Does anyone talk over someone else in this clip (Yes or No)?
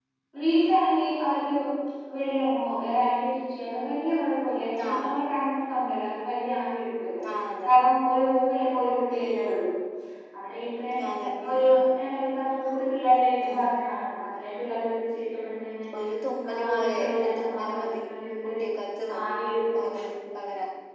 Yes